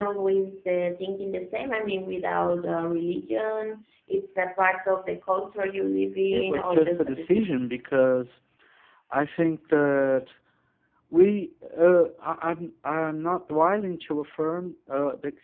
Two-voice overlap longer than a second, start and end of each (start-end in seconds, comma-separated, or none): 6.3-7.5